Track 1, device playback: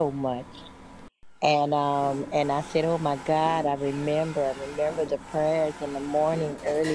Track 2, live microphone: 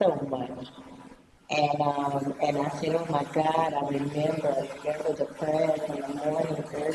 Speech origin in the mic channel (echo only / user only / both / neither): echo only